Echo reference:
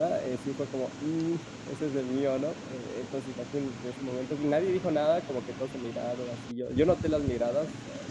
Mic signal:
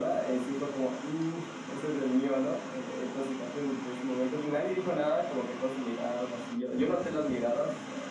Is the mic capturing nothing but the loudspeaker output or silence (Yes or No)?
Yes